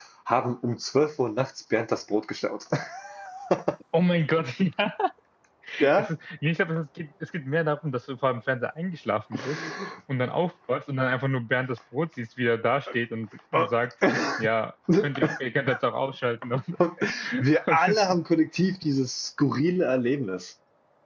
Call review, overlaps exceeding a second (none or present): none